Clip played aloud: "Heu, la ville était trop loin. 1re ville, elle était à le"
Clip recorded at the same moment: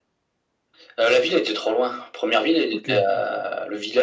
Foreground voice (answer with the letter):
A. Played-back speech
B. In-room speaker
A